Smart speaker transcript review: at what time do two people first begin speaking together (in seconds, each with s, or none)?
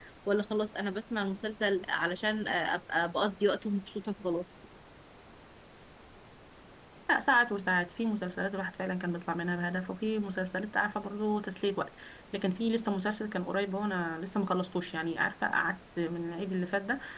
none